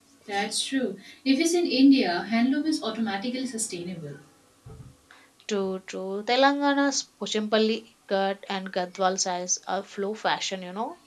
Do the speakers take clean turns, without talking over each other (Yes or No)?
Yes